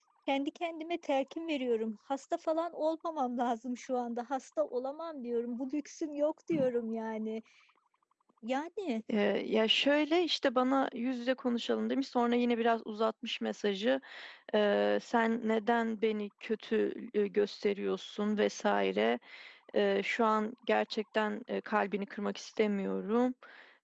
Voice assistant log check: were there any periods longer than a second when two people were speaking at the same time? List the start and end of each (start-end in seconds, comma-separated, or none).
none